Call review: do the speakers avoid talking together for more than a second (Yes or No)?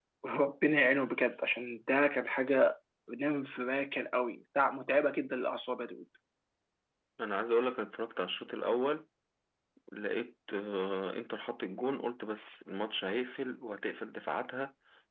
Yes